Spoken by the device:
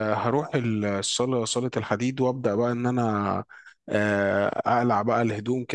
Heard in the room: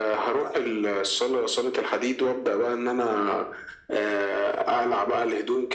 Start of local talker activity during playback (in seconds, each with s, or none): none